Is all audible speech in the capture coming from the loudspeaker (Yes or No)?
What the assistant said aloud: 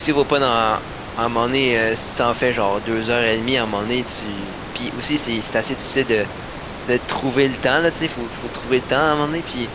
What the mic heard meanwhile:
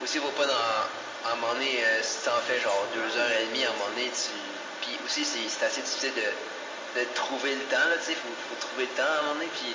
No